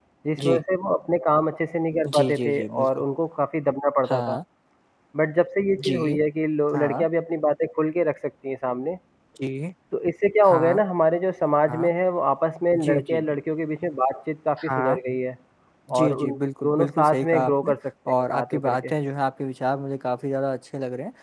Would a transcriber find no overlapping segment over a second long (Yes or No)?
No